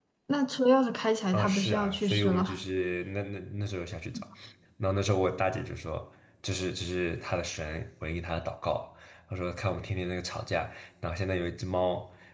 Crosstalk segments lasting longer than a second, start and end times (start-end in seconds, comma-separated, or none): 1.3-2.6